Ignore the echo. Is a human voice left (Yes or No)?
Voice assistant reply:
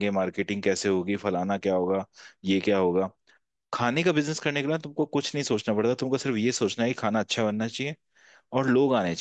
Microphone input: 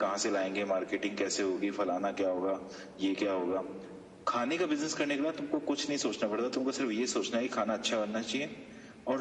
No